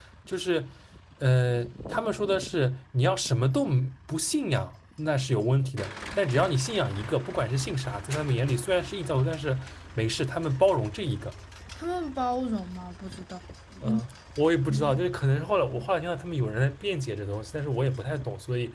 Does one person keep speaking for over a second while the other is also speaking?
No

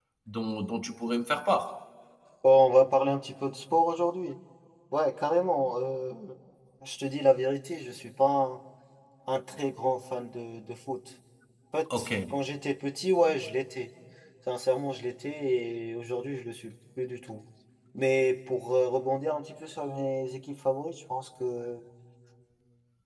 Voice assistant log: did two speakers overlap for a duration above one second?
No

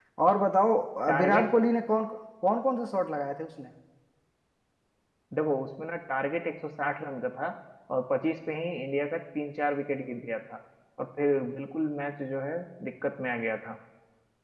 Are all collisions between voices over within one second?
Yes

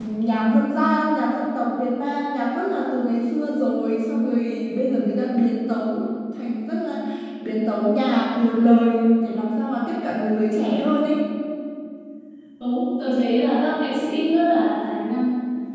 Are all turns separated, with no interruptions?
Yes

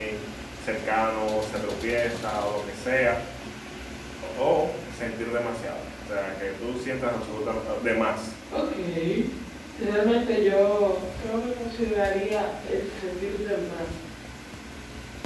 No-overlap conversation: Yes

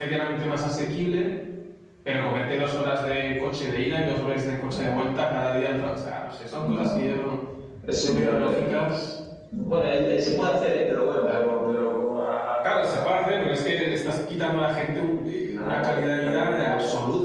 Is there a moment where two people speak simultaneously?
Yes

